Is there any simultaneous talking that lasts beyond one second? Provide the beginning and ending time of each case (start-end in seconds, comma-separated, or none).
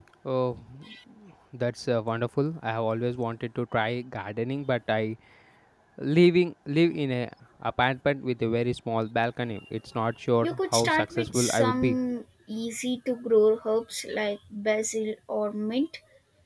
10.4-12.0